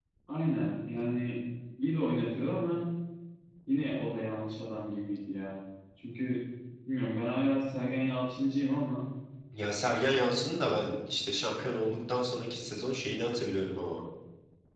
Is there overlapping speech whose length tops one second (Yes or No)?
No